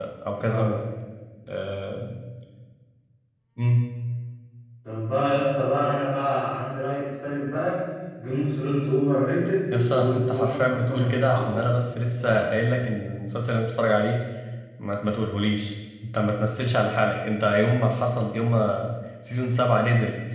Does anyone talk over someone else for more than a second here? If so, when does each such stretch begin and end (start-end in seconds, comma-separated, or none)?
9.7-11.6